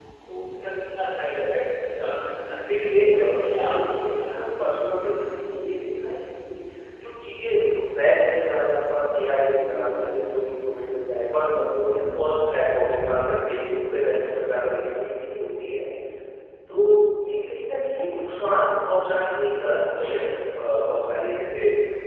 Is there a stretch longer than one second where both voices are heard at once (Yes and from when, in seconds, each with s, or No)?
Yes, from 2.7 s